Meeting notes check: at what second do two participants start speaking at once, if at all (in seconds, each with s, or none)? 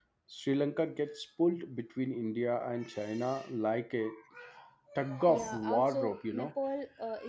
5.3 s